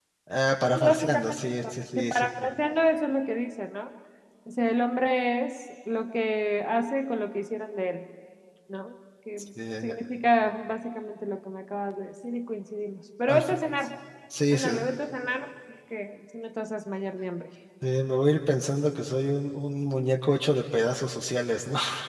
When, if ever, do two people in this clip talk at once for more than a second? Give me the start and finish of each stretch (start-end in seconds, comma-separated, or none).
0.6-2.5